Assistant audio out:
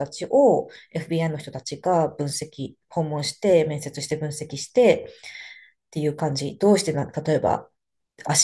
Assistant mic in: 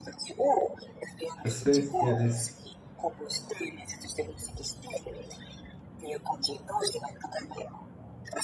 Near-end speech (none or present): present